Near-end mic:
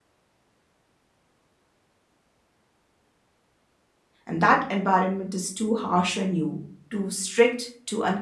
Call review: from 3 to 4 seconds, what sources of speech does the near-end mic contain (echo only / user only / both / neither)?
neither